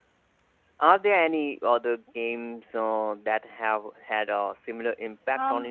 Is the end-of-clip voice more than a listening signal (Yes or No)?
Yes